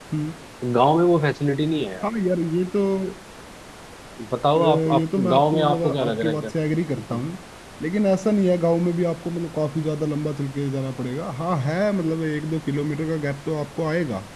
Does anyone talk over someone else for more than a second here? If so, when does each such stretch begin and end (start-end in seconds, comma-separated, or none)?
4.6-6.5